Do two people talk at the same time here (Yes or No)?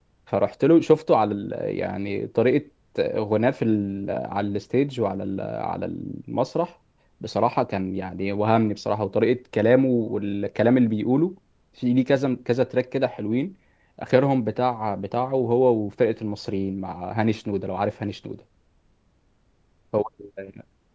No